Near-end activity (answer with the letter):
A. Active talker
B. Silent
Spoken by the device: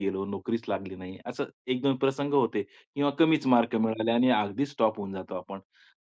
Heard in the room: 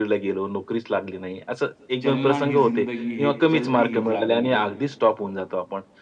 A